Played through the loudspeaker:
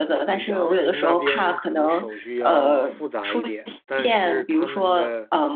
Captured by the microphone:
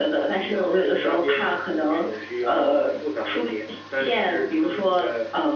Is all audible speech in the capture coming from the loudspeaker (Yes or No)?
Yes